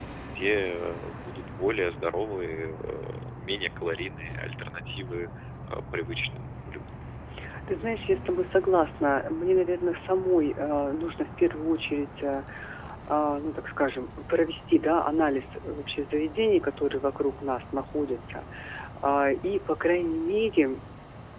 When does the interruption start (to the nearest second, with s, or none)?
none